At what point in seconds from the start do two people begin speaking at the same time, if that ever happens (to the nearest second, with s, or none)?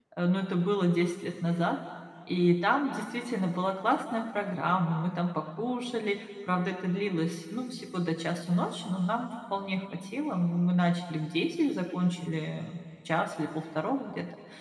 none